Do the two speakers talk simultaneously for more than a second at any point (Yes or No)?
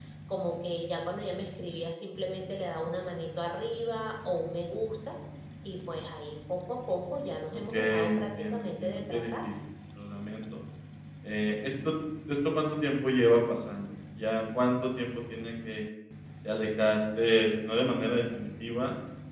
Yes